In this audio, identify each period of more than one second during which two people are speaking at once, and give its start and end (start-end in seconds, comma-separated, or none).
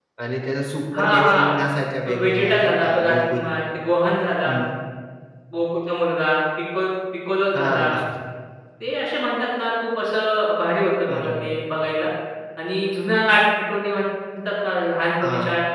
2.1-3.4